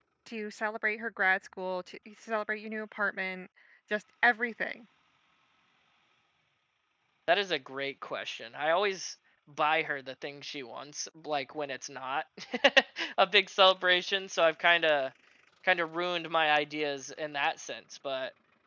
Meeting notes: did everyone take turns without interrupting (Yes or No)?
Yes